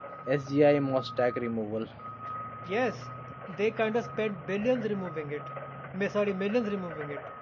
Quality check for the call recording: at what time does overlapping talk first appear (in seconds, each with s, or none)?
none